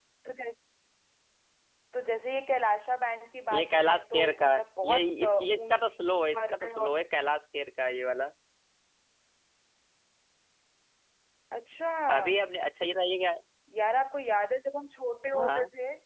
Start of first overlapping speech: 3.5 s

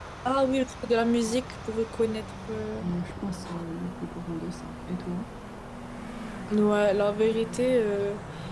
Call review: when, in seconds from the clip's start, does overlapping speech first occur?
none

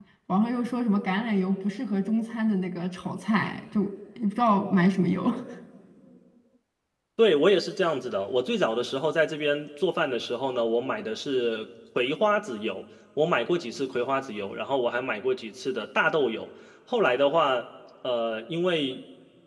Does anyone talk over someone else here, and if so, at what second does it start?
none

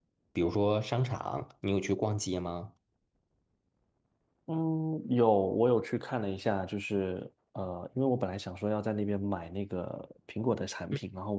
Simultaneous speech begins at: none

